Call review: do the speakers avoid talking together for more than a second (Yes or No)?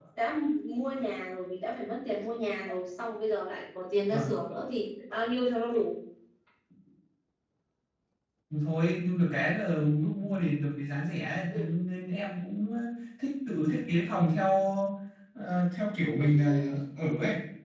Yes